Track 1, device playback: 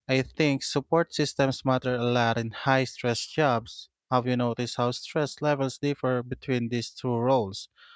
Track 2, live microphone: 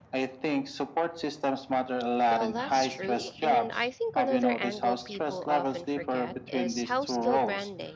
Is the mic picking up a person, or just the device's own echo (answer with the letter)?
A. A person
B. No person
A